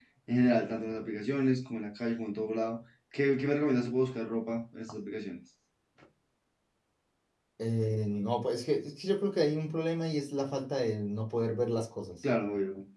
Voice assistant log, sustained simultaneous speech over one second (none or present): none